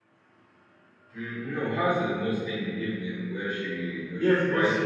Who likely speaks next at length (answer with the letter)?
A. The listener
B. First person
A